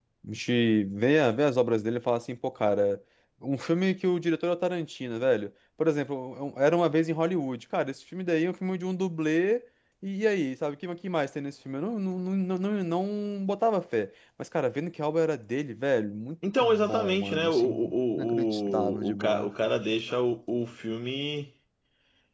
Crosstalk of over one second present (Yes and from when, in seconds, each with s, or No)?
Yes, from 16.4 s